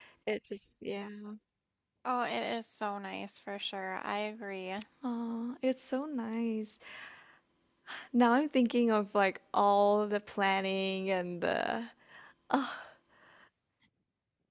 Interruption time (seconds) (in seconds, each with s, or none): none